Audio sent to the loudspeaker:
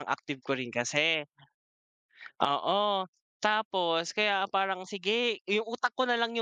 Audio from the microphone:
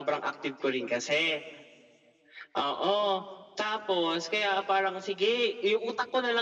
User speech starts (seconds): none

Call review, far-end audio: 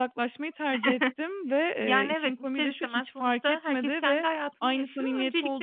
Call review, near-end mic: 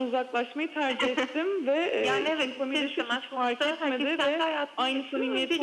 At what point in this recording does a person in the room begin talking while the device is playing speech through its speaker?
none

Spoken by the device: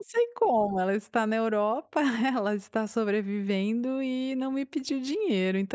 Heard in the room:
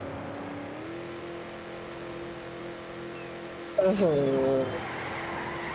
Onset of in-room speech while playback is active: 3.8 s

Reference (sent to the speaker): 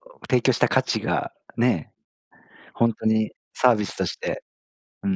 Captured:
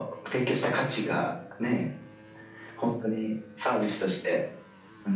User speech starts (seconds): none

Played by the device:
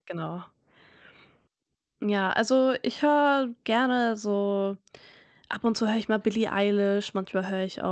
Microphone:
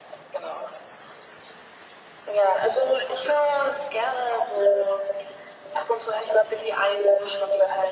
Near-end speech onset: none

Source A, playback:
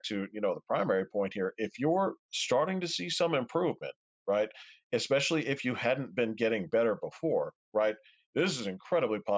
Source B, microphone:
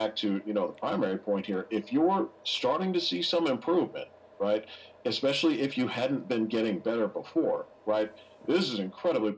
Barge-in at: none

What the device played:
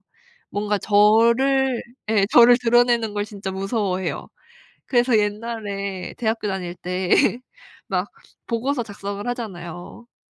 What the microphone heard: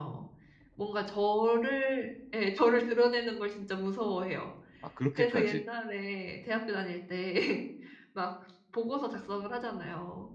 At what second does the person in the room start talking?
4.8 s

